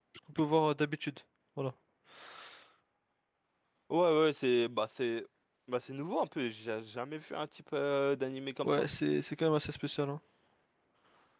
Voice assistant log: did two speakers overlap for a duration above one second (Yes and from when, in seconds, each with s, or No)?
No